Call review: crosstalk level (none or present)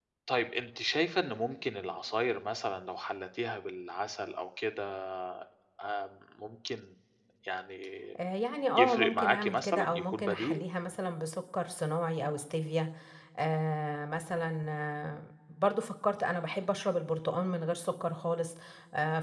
present